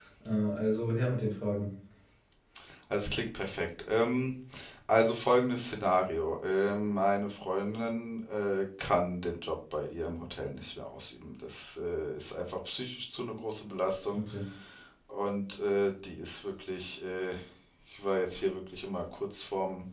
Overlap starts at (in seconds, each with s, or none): none